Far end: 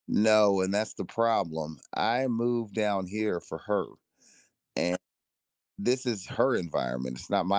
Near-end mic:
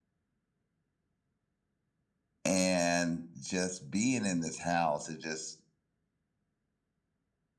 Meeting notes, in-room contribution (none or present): present